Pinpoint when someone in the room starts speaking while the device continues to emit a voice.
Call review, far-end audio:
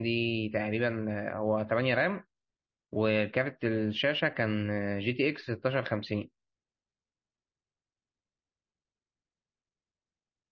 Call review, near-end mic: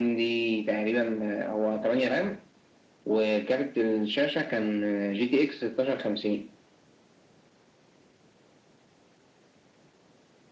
none

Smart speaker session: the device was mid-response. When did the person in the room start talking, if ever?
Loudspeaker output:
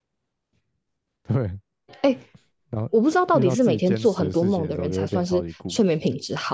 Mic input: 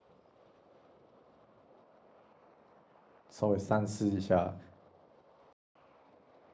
3.3 s

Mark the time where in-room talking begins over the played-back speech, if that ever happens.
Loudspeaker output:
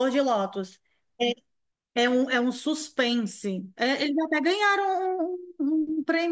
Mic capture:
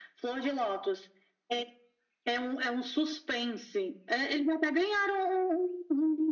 none

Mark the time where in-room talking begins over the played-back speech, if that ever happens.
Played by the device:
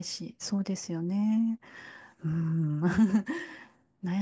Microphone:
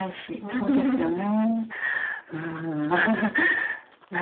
0.4 s

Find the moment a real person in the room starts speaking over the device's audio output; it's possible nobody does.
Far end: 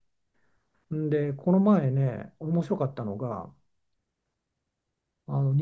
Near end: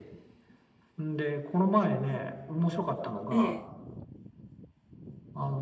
3.3 s

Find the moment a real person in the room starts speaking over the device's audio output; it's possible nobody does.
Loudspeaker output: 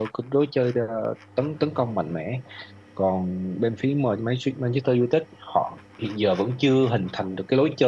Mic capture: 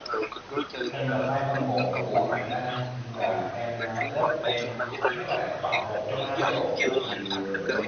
0.9 s

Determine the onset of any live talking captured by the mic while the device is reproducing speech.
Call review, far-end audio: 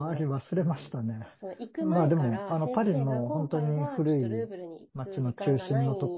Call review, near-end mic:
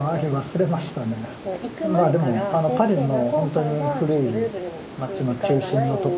none

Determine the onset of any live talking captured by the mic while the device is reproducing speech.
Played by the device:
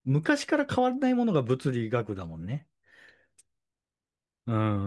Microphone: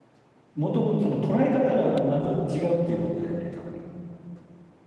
0.5 s

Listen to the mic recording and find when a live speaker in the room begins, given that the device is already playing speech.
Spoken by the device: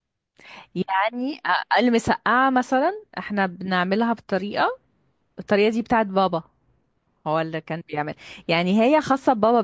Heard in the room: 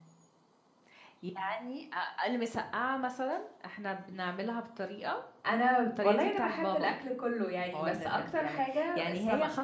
5.5 s

